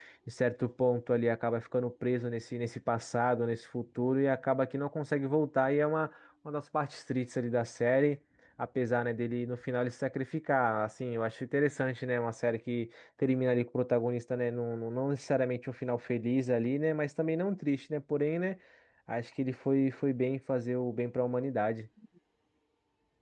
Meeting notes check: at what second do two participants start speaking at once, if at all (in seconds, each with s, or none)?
none